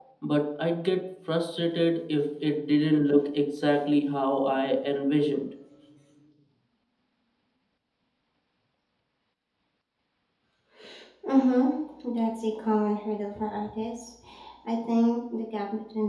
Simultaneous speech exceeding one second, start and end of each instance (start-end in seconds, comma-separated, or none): none